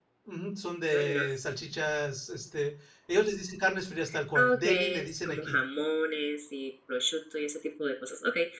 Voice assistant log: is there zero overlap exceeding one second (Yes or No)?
No